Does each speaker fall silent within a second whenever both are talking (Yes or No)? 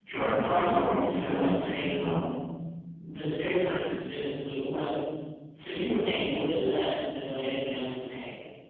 No